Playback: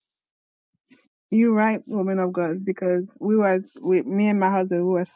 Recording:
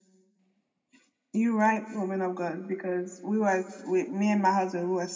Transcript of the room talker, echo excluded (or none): none